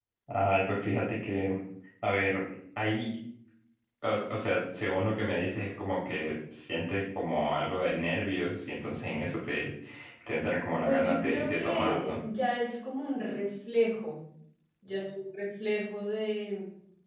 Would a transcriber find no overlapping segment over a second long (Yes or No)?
No